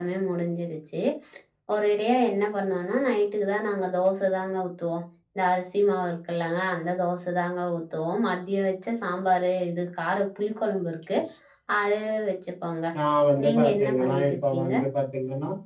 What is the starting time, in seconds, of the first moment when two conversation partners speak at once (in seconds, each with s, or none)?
13.4 s